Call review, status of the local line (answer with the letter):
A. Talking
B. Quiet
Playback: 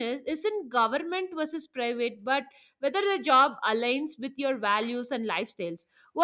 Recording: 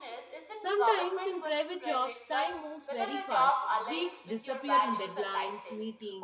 A